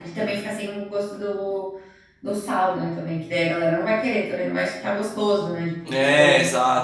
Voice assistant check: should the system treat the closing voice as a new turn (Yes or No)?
Yes